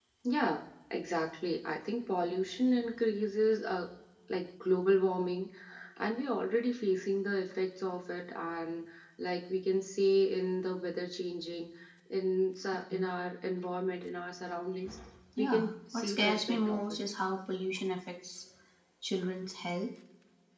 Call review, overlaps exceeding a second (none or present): present